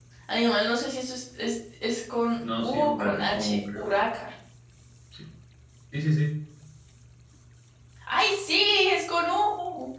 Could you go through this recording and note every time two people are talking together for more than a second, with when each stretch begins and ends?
2.6-3.8

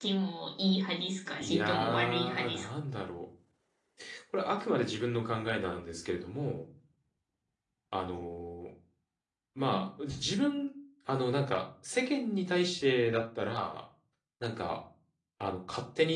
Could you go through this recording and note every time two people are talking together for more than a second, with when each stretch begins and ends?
1.4-2.7

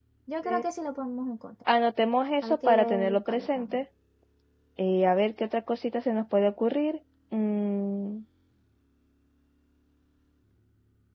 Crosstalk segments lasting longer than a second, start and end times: 2.4-3.8

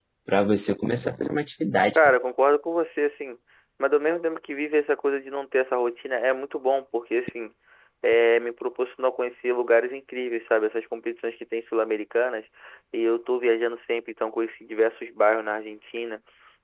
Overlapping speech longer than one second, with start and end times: none

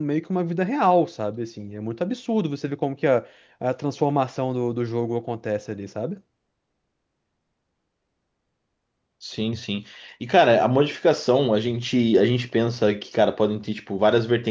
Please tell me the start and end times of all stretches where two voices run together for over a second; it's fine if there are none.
none

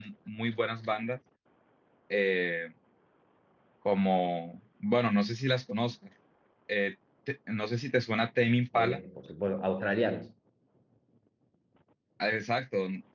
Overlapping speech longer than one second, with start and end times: none

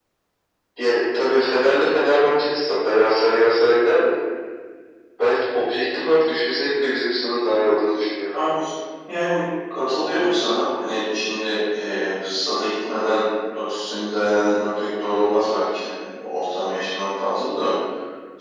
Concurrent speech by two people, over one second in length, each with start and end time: none

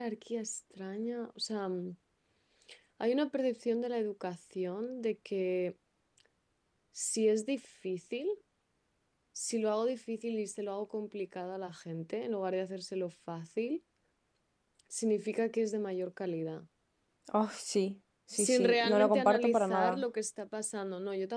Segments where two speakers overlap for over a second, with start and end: 18.3-20.0

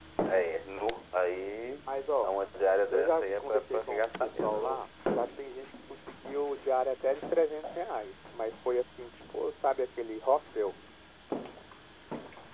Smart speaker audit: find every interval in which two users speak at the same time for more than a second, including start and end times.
2.9-4.8

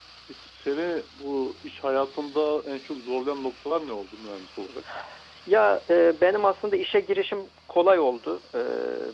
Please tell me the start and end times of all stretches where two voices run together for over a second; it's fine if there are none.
none

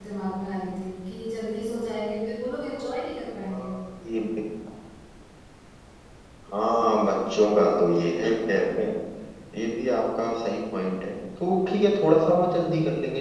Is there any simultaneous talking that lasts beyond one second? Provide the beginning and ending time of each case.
none

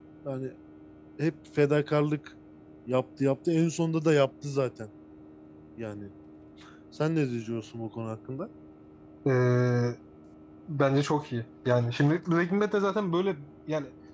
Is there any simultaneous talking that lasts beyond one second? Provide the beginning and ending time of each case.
none

